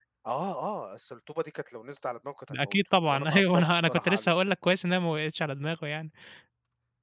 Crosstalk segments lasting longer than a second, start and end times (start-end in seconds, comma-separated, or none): 2.5-4.3